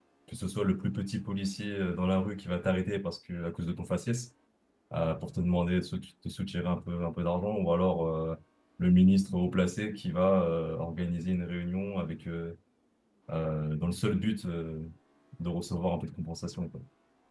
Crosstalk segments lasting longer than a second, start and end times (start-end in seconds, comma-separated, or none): none